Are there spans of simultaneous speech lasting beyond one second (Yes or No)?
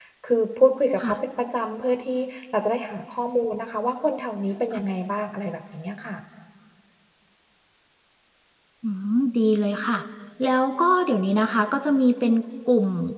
No